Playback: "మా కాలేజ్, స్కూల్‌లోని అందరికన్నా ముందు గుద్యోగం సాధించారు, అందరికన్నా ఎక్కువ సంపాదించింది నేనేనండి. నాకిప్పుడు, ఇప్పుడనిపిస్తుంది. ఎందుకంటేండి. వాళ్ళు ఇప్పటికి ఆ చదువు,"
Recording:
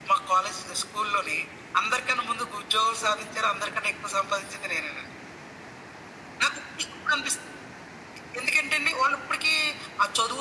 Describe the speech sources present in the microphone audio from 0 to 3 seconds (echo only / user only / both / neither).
echo only